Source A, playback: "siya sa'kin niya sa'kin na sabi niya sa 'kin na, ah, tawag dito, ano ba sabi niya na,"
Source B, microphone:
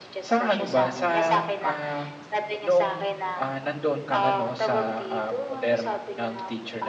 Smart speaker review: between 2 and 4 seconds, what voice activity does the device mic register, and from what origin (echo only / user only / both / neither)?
both